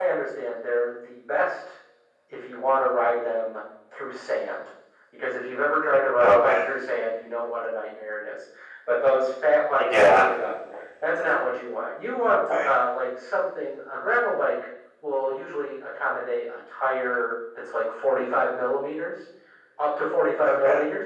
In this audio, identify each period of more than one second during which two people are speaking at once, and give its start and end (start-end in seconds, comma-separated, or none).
none